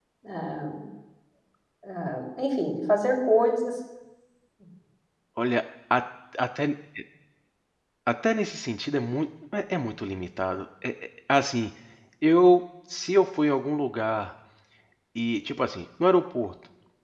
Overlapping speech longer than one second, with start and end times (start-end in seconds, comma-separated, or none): none